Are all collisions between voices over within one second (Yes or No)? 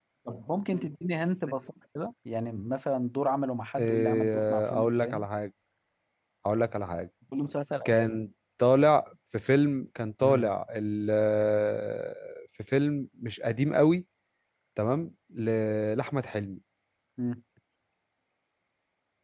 No